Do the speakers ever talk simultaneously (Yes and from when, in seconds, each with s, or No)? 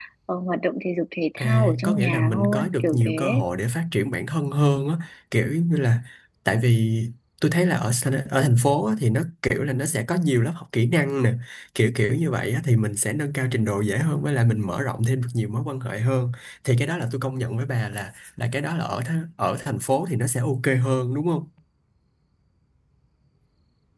Yes, from 1.4 s